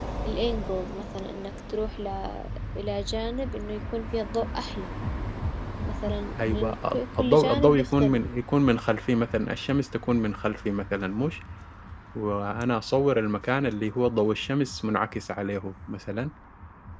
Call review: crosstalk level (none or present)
present